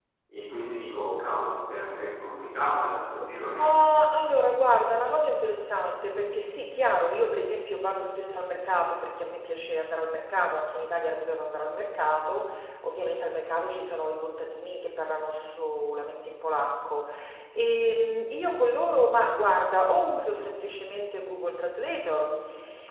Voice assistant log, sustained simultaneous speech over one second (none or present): none